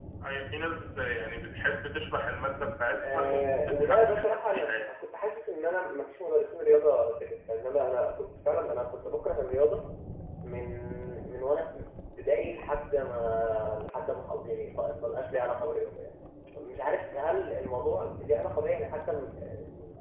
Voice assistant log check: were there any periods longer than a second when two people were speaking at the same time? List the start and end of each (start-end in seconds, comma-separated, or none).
2.9-4.9